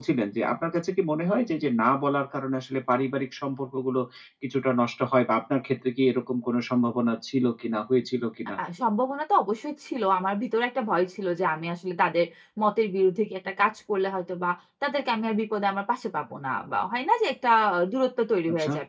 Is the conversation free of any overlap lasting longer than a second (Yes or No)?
Yes